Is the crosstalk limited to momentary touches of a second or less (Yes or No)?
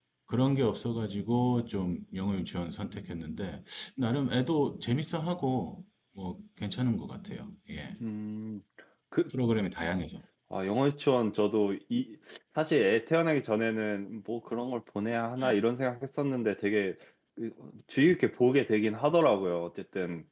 Yes